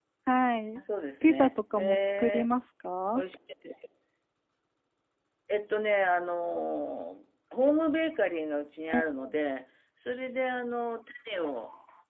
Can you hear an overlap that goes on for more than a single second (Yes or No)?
Yes